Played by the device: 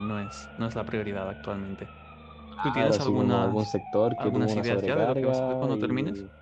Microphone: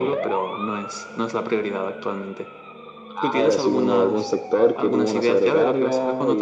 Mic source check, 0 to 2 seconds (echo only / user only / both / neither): echo only